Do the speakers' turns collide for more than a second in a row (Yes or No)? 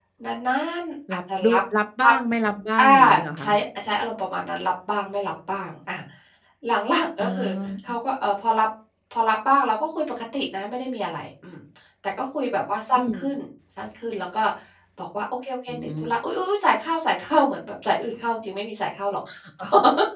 No